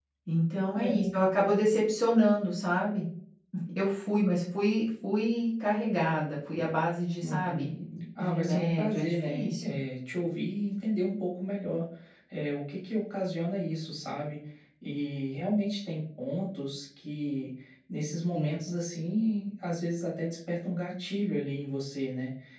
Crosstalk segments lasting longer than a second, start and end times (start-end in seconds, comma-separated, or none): 8.2-9.8